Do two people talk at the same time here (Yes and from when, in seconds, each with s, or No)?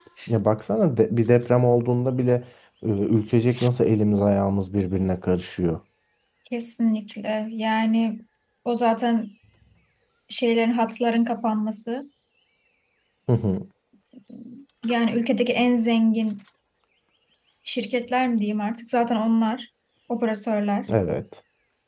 No